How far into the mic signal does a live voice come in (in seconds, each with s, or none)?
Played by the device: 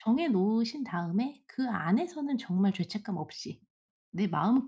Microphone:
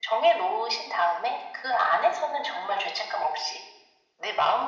none